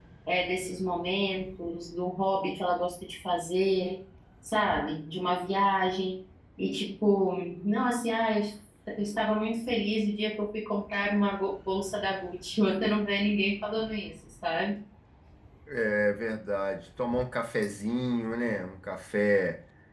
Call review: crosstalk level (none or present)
none